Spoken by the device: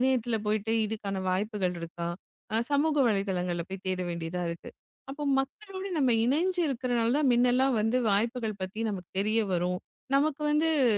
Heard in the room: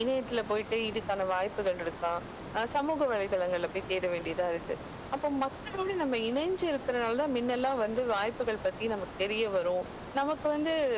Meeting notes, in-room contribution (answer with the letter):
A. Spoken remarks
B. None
B